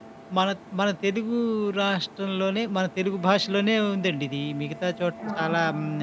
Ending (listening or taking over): listening